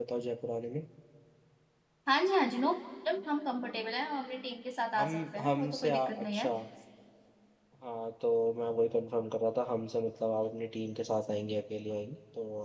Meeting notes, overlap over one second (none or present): present